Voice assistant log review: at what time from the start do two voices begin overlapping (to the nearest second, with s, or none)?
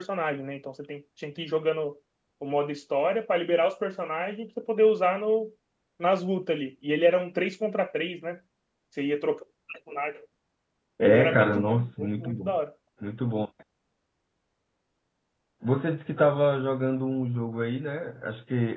11 s